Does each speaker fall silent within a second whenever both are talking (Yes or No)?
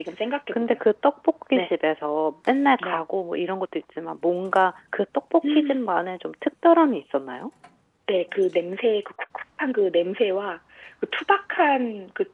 Yes